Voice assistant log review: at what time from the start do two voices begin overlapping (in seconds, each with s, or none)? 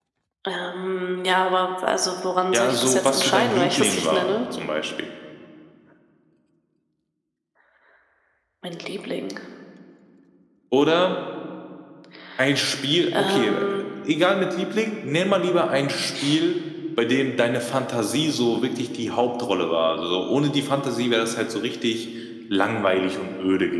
2.5 s